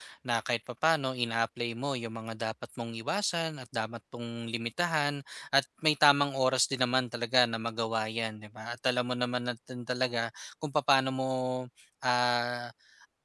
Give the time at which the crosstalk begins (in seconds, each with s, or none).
none